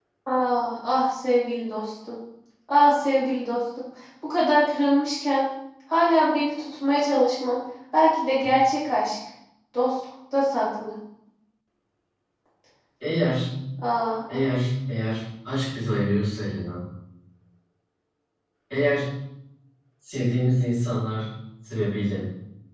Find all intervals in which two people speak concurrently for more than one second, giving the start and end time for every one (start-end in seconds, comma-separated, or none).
none